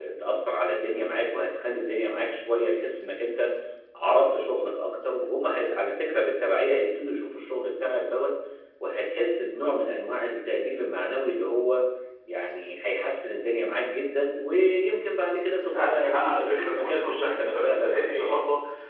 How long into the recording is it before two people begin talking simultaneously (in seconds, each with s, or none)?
15.7 s